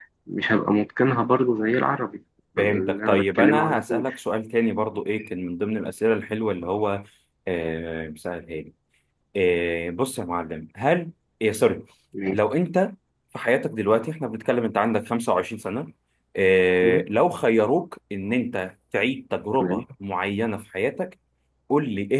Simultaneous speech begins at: 2.6 s

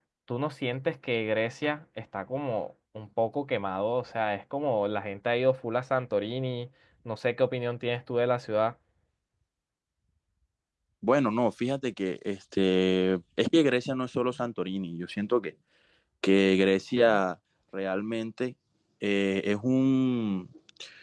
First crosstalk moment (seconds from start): none

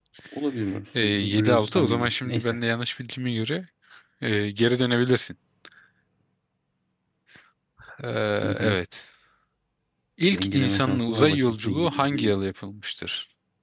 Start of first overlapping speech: 1.0 s

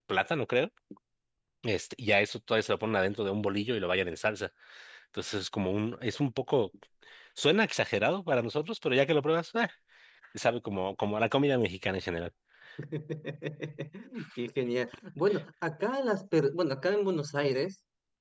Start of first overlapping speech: none

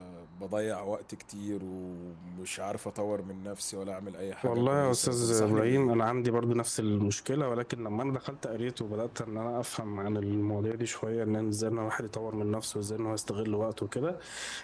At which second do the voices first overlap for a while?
4.4 s

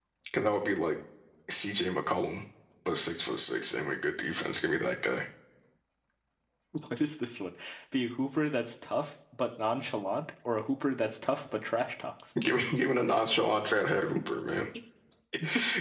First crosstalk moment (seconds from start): none

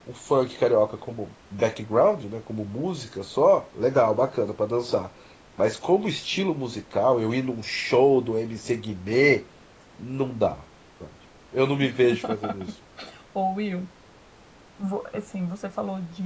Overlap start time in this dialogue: none

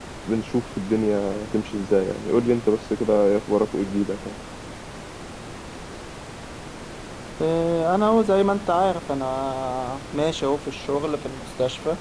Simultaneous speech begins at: none

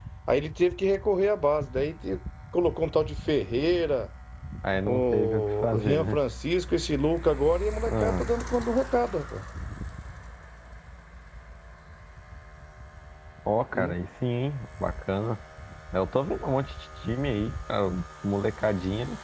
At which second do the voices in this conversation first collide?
4.8 s

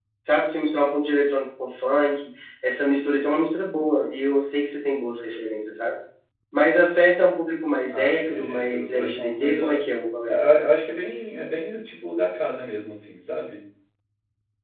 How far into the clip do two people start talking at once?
7.9 s

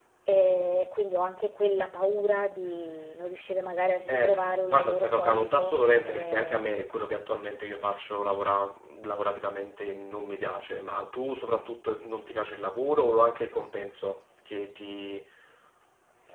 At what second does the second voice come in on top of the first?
4.1 s

